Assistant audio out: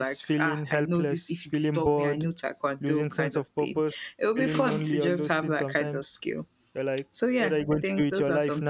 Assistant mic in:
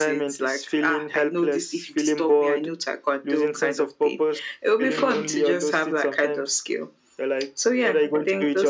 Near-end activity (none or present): none